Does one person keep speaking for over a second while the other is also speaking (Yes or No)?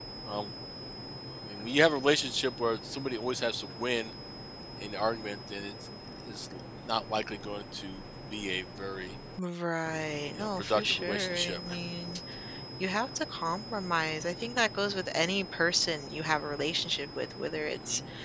Yes